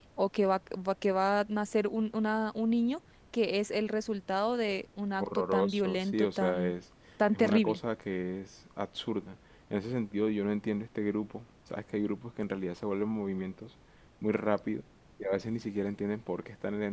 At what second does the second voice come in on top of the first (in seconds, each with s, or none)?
5.2 s